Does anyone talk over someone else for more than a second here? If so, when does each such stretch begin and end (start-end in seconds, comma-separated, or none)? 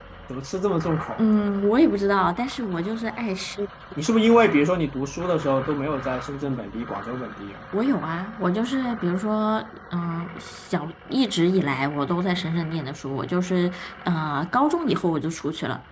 none